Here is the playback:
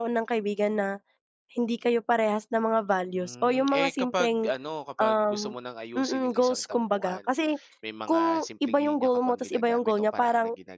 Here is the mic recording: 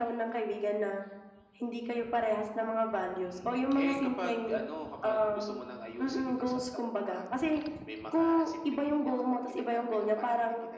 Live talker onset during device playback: none

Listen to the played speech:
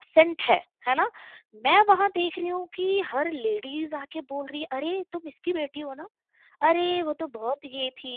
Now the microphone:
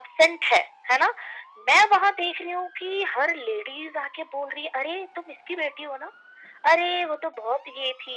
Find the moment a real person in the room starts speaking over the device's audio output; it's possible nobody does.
none

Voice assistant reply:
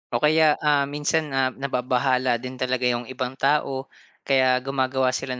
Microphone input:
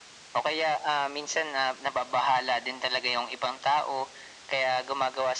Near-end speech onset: none

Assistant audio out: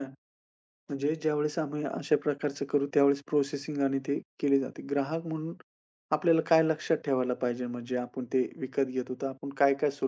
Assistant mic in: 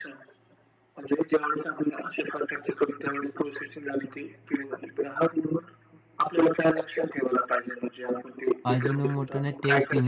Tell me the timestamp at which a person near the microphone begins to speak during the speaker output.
8.7 s

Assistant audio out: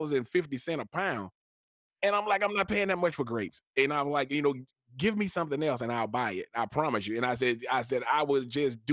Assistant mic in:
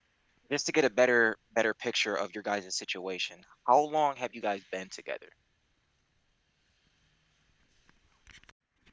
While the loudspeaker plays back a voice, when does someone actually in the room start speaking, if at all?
0.5 s

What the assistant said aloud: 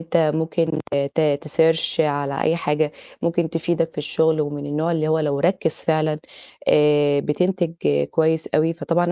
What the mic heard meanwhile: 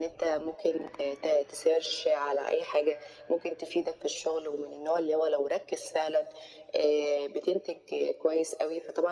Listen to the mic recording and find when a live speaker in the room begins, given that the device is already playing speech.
none

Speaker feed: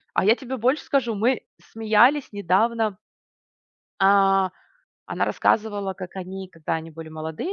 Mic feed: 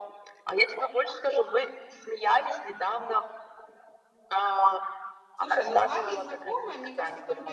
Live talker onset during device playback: 5.3 s

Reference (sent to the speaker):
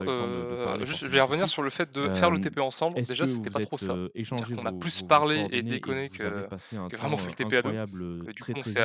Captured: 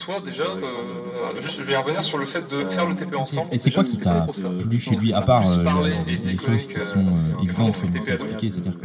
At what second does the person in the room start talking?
3.2 s

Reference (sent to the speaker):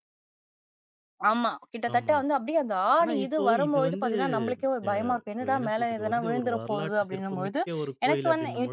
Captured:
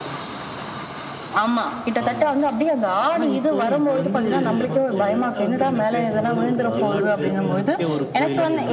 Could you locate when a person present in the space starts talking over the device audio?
4.3 s

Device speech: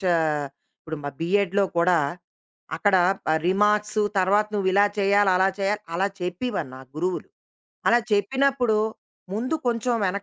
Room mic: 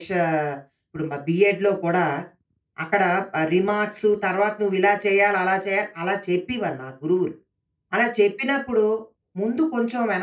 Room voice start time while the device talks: none

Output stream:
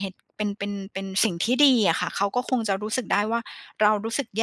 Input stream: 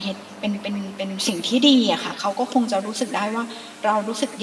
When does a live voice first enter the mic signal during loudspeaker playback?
none

